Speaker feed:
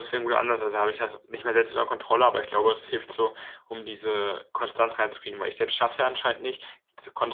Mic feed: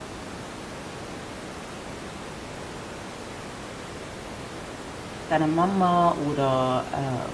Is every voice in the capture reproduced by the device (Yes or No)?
No